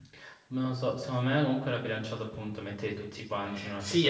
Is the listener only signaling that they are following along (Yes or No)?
No